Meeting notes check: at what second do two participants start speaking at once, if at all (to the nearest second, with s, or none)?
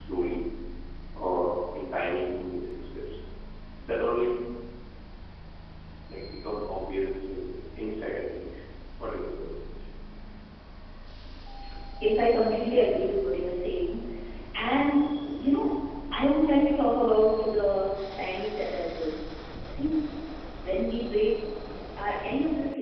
none